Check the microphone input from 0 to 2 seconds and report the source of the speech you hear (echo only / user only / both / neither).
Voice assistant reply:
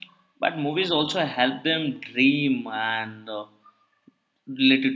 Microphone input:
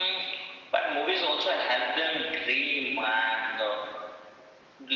echo only